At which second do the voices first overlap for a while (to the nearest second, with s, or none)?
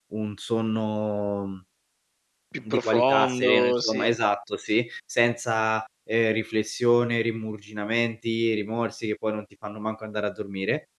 3 s